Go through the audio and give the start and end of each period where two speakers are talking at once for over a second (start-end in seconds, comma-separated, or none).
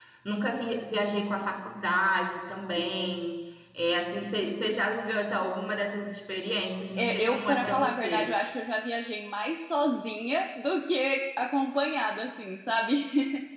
7.0-8.3